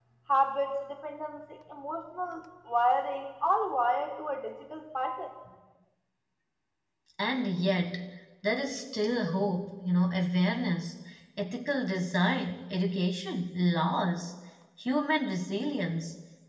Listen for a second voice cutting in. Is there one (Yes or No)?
No